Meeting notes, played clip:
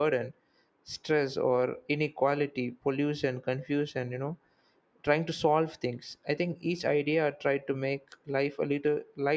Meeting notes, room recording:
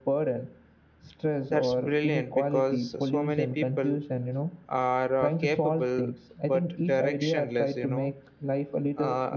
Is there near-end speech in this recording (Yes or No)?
Yes